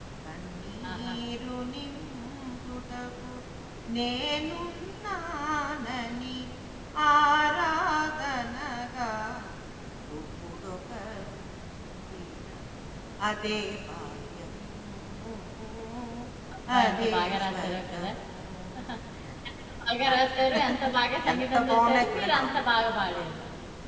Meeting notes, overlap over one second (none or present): present